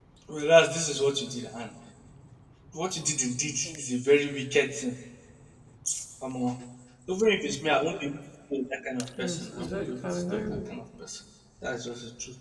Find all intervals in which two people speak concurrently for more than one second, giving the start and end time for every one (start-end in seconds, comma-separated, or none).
9.2-10.4